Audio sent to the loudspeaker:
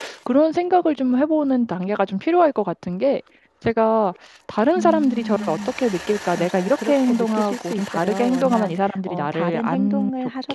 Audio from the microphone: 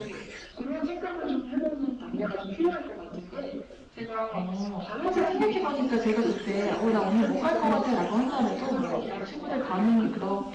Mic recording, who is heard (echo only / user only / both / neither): both